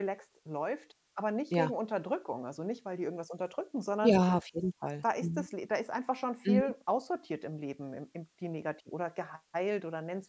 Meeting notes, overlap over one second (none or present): none